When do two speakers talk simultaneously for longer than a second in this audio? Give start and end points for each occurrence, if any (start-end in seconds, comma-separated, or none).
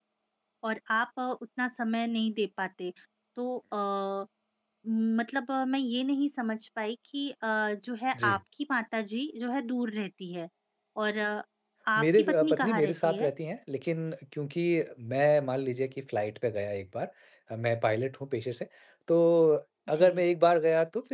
12.0-13.3